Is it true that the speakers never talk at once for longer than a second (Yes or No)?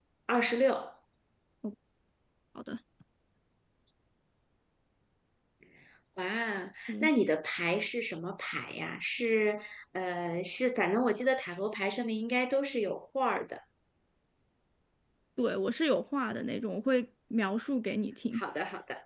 Yes